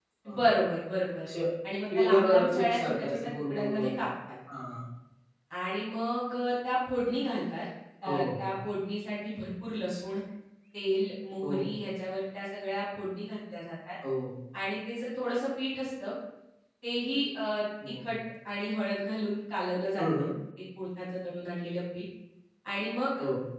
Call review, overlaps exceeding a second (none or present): present